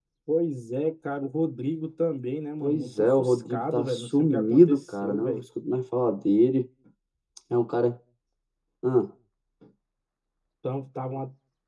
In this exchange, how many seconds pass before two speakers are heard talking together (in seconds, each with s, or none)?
2.6 s